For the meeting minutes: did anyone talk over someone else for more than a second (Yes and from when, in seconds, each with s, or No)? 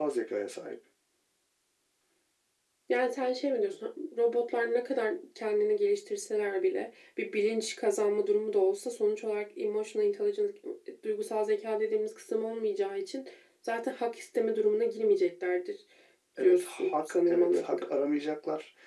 Yes, from 16.4 s